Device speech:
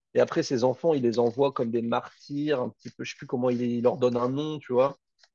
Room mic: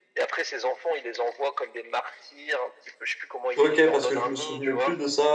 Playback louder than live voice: No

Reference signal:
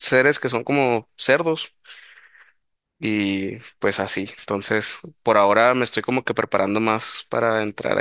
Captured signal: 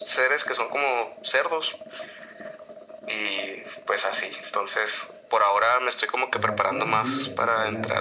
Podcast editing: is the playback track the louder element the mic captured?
Yes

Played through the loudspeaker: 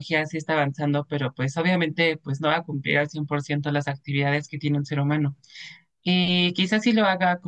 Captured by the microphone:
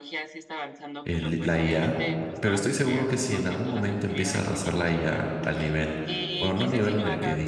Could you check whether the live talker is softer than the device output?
No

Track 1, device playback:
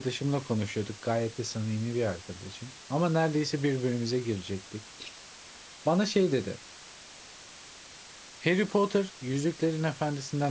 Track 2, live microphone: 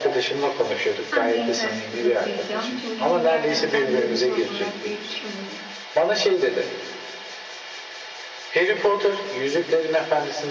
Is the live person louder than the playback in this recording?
No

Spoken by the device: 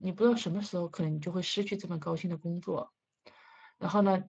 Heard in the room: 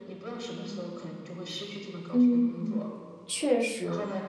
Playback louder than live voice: No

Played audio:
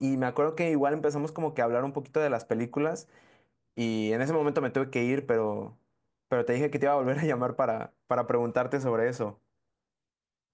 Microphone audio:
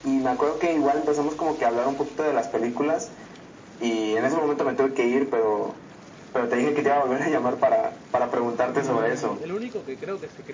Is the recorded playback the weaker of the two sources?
No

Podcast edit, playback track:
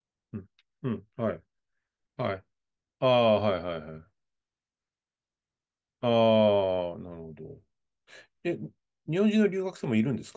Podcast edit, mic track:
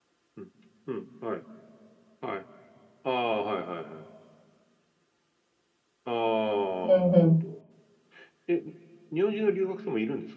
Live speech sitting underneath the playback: No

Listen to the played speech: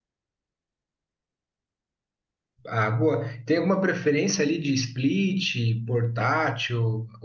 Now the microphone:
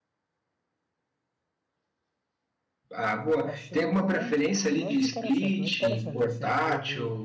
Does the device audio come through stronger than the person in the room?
Yes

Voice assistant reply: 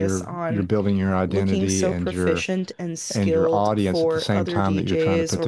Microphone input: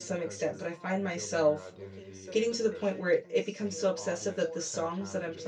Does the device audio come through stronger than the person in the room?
No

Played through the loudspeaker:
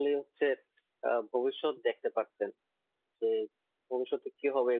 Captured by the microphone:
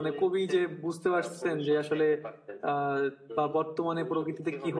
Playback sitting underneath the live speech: Yes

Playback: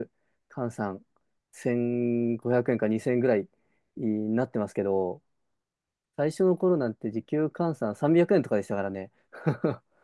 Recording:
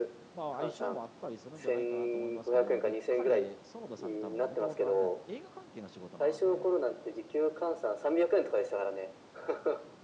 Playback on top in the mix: Yes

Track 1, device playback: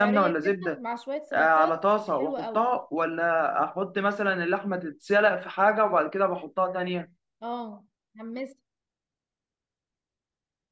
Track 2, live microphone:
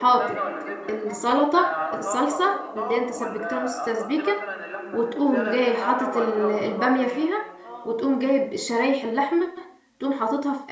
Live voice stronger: Yes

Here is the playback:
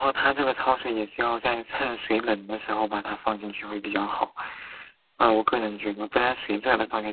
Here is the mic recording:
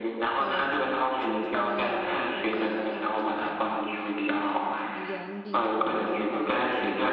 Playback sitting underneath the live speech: No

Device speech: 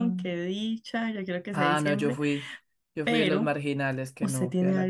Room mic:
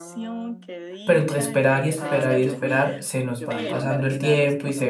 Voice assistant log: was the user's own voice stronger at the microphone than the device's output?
Yes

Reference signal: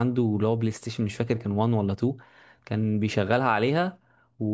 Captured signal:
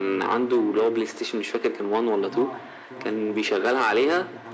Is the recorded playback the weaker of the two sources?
No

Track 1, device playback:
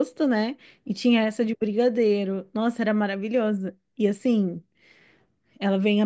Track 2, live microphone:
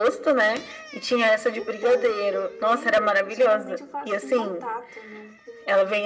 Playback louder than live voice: Yes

